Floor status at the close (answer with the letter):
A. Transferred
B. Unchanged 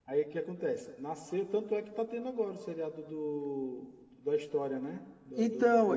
A